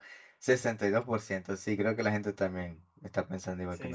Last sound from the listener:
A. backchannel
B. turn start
B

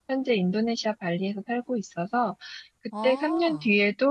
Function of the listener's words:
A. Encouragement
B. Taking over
A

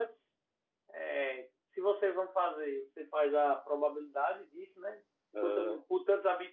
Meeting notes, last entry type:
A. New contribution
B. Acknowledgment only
B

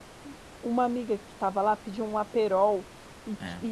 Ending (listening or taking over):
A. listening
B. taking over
A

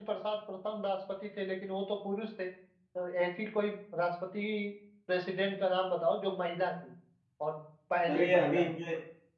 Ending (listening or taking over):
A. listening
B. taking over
B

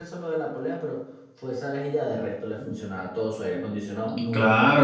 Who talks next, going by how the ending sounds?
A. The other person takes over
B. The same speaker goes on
A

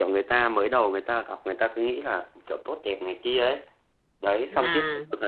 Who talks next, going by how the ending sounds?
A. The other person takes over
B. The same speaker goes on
B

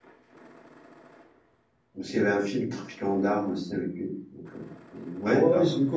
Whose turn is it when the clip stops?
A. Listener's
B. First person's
A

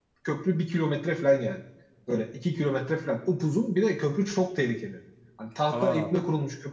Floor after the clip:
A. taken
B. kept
B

